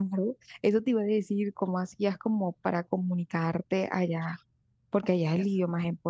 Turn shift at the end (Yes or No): Yes